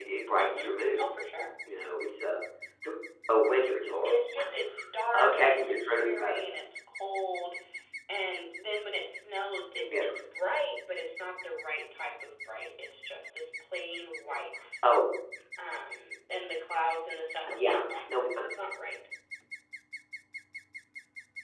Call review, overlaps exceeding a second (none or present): present